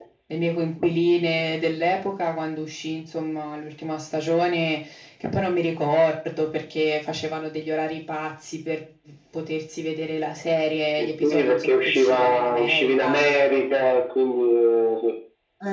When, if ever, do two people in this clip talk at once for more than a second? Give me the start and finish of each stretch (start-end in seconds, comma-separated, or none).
11.0-13.2